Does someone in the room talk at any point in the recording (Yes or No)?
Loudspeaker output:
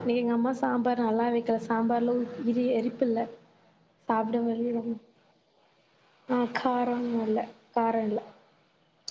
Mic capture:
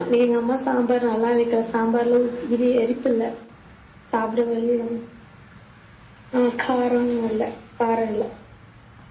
No